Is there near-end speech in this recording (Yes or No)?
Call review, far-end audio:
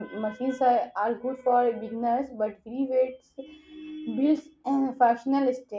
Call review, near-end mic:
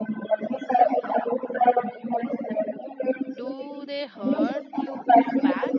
Yes